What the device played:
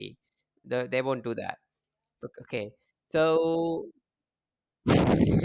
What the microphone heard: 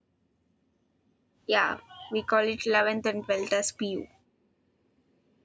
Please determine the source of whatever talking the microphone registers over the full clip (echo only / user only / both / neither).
user only